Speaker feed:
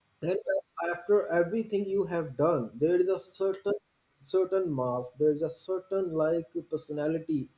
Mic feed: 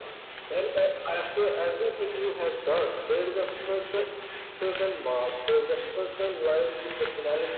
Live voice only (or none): none